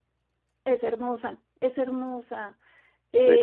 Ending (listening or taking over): listening